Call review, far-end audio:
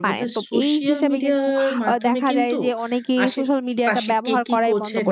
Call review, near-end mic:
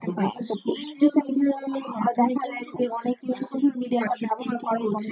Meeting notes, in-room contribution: none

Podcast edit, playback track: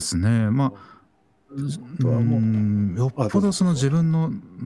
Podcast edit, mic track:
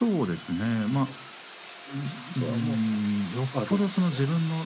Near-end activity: none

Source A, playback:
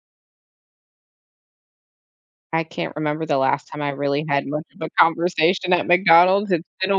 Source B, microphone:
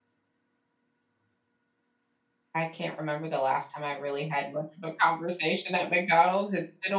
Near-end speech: none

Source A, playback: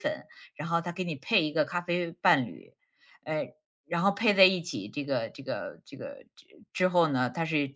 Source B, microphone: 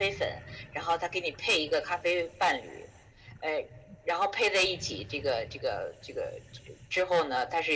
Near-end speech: none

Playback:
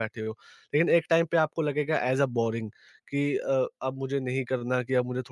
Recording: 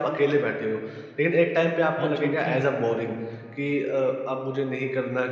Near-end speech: present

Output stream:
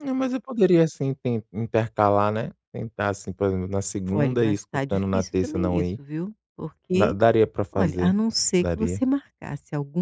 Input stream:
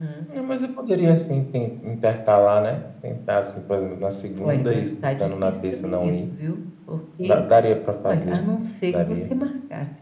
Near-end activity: none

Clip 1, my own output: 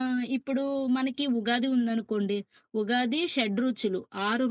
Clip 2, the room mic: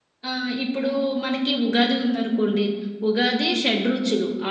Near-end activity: none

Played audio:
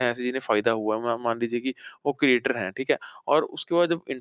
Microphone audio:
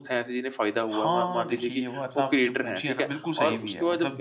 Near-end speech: present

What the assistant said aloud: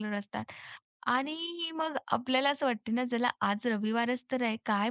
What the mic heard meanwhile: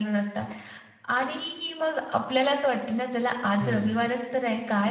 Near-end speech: present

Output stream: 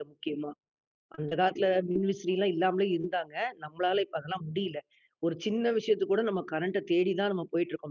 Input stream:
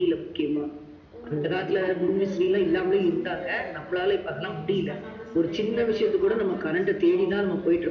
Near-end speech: present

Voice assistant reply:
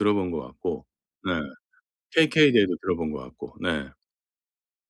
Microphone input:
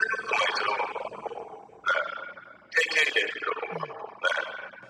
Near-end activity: present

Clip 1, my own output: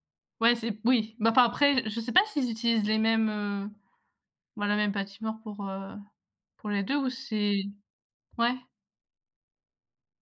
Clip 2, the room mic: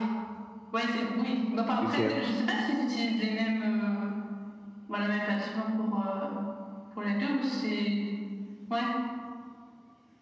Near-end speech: present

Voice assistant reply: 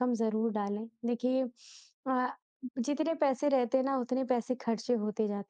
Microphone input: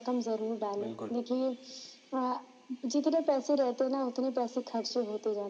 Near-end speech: present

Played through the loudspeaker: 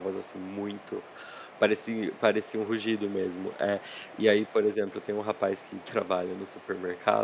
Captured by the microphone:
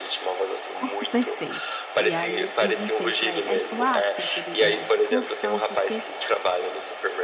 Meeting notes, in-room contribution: present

